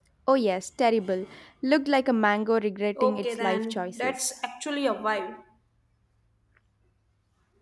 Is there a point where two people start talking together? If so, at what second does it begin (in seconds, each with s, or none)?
3.0 s